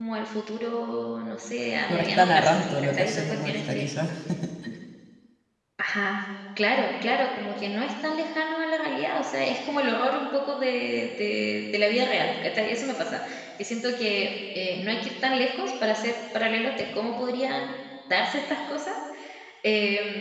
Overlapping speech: Yes, from 1.9 s

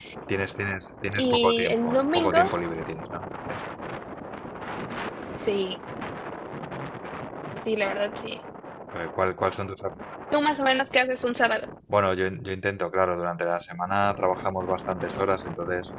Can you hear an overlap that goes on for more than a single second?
Yes, from 1.1 s

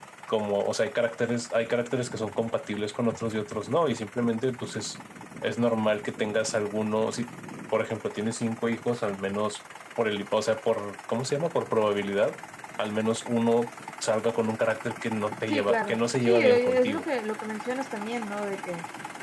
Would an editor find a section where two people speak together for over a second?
Yes, from 15.5 s

